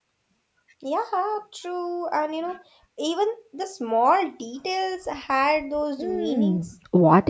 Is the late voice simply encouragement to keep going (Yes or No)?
No